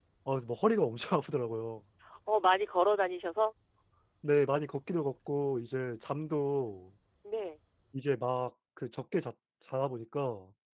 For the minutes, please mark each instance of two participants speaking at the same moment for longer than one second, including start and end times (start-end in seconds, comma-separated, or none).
none